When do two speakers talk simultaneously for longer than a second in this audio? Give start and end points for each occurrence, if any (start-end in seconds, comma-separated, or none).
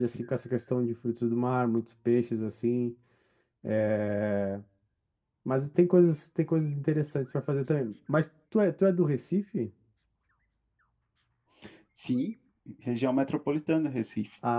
none